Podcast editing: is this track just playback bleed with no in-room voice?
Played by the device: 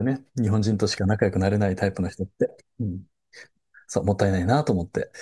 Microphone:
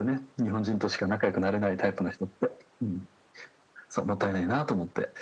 Yes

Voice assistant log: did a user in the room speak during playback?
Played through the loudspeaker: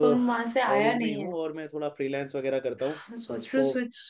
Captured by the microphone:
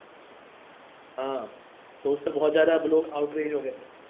Yes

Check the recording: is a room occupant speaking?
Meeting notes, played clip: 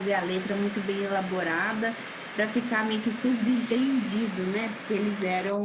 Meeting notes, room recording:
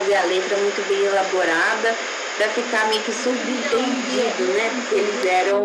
Yes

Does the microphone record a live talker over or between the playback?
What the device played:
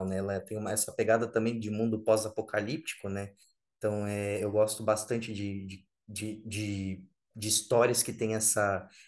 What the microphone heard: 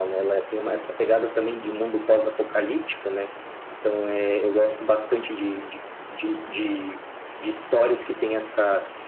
No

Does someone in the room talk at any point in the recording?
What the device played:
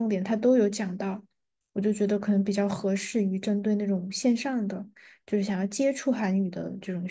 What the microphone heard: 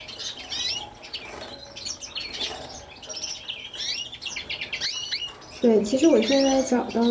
Yes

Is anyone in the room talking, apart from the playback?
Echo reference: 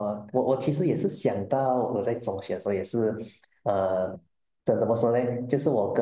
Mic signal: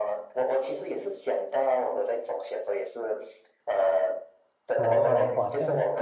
Yes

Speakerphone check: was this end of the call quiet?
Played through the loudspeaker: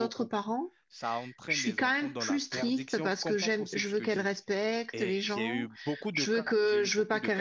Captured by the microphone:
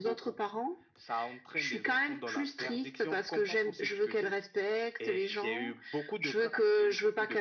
Yes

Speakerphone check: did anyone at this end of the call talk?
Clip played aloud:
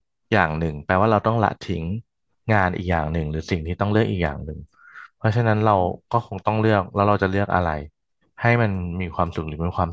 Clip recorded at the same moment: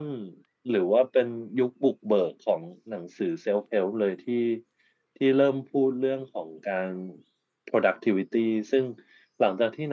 Yes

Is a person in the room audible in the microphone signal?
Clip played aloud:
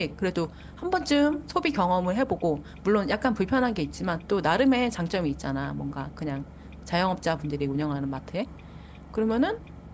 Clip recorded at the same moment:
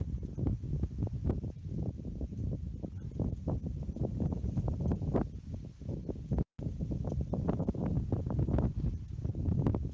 No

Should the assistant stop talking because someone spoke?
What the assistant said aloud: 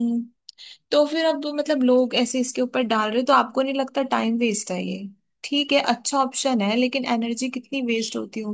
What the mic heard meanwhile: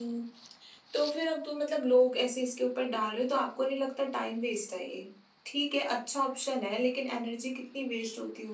No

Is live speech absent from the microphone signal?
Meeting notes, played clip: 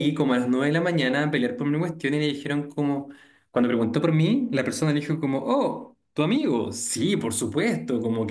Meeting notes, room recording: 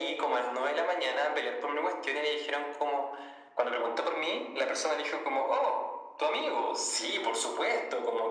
Yes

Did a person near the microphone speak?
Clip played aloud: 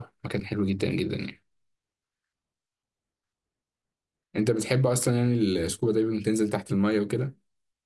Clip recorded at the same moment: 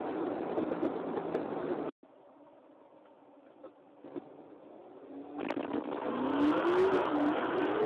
No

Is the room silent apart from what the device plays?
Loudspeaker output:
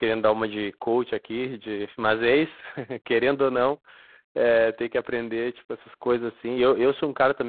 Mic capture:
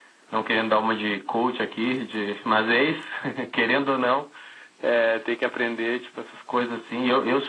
Yes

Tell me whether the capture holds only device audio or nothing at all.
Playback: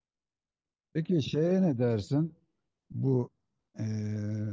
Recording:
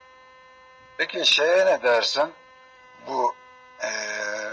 Yes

